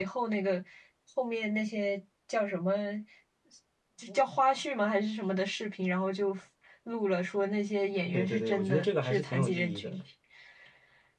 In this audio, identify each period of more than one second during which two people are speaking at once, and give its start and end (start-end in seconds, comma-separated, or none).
8.1-10.0